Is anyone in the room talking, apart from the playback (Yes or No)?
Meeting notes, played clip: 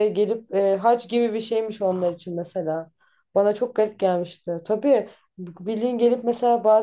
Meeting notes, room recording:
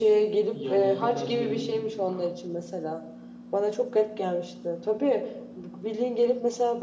Yes